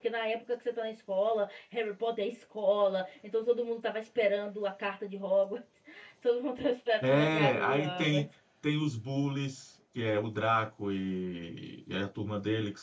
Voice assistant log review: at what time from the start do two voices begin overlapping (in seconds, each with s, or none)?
7.0 s